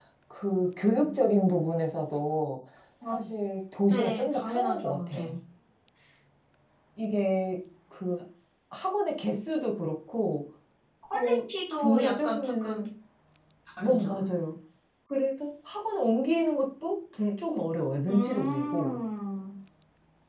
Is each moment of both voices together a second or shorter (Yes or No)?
No